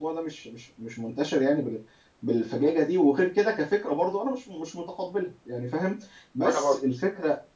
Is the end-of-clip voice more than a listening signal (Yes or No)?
No